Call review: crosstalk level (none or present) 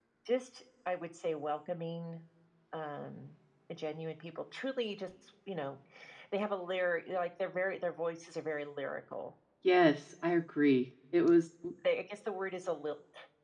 none